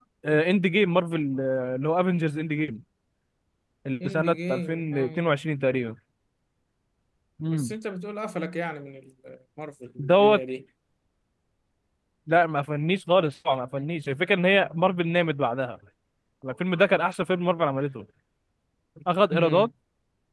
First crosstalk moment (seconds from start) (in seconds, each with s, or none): 4.0 s